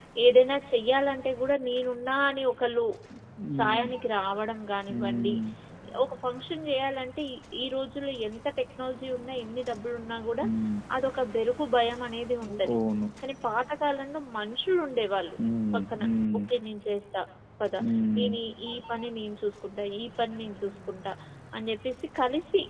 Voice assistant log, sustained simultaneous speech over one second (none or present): none